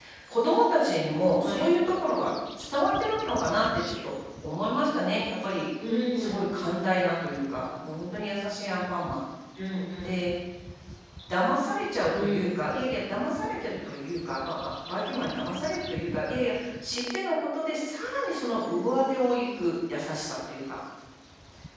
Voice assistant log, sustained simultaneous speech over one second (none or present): none